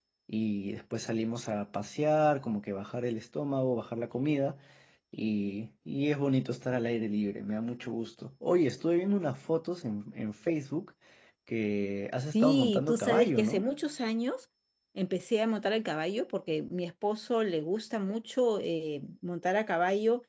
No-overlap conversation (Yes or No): No